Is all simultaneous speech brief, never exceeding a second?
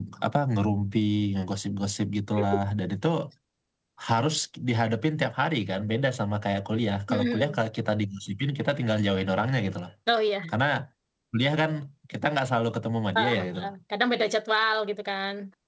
Yes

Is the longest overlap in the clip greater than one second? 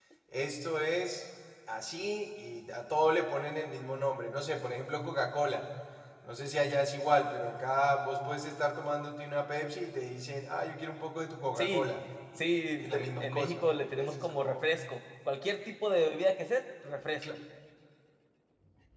Yes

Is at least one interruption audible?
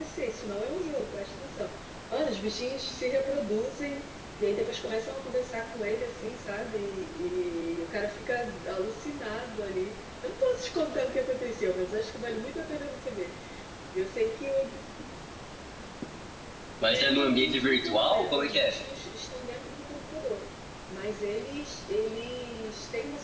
Yes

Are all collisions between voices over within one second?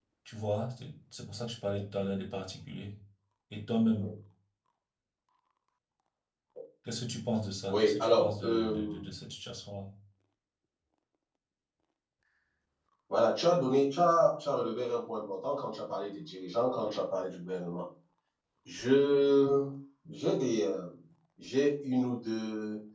No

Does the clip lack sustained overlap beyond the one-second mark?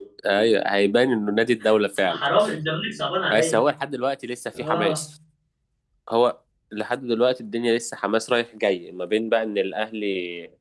Yes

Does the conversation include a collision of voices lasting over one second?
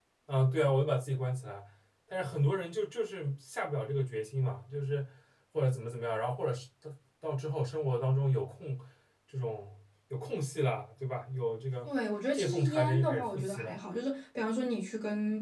Yes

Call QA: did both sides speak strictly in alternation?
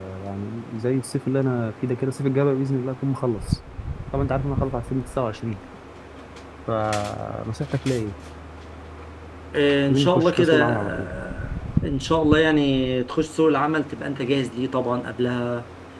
No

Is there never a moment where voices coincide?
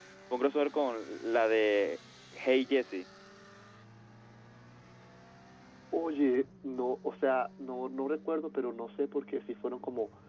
Yes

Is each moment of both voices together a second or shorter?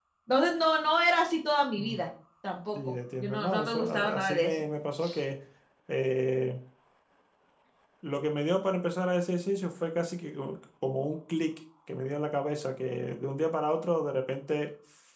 No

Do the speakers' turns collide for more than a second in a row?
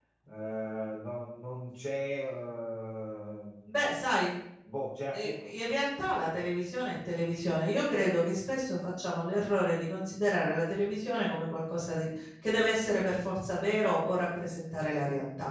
No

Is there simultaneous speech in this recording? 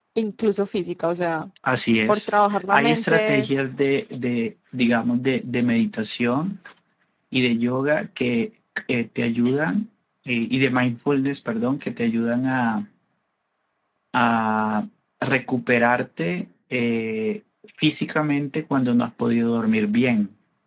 Yes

